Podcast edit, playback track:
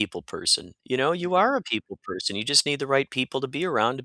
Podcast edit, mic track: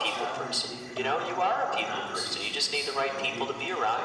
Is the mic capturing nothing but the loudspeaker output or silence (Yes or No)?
No